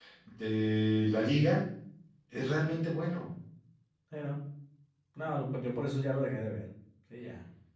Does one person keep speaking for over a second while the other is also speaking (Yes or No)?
No